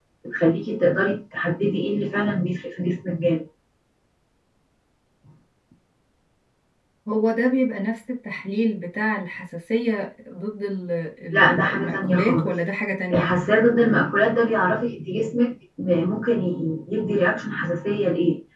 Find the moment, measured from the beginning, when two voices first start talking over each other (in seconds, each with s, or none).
11.3 s